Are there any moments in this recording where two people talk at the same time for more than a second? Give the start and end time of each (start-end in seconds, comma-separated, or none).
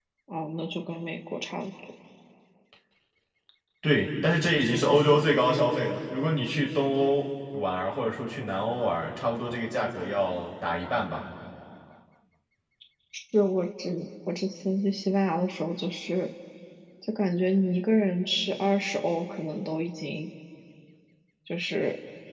none